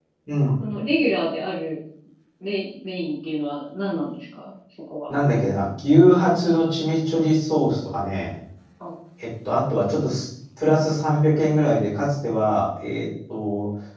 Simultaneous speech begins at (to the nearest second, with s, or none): none